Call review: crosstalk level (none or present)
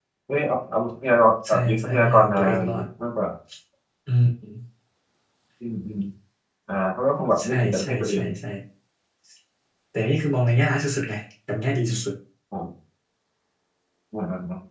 present